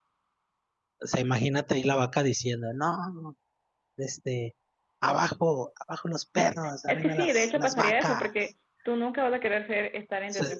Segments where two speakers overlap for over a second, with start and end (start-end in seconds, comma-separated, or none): 6.9-8.3